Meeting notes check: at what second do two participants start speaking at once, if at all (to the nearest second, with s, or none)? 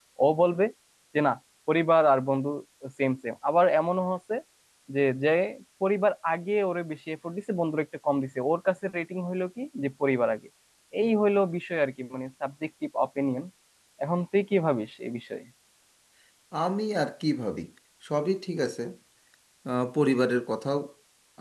none